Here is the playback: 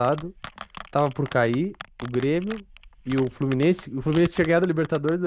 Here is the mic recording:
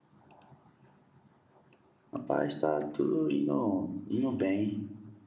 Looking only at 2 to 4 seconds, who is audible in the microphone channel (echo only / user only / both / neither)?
user only